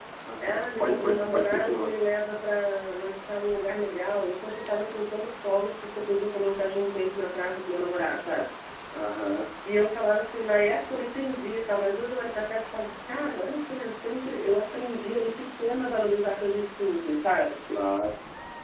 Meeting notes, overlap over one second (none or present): present